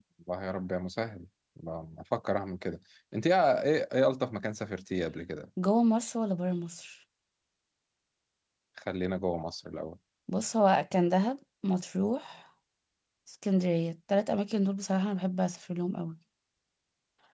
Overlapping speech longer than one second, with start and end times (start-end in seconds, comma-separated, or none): none